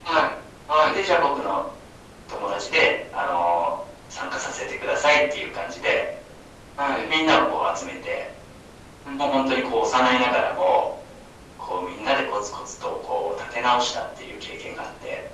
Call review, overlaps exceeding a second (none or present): none